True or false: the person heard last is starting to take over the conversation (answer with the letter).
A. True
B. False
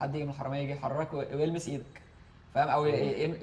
B